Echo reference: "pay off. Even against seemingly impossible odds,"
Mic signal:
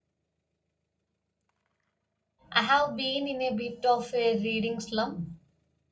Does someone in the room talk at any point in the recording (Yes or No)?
Yes